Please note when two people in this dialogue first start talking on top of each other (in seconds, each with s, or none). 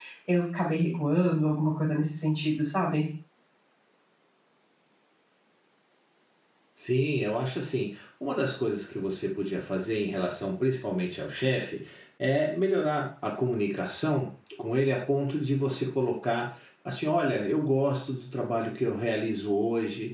none